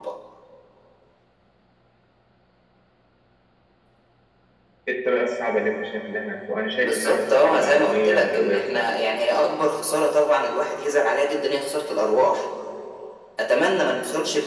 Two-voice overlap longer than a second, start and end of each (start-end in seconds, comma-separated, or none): 6.8-8.8